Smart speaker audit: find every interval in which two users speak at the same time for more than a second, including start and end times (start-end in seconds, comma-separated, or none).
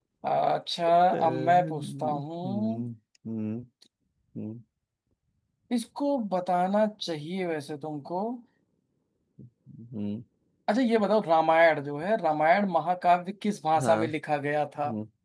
1.3-2.8